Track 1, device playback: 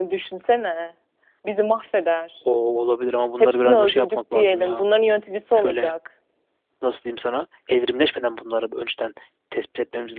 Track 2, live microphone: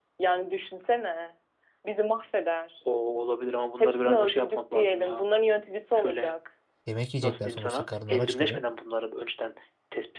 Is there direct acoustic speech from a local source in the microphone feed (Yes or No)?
Yes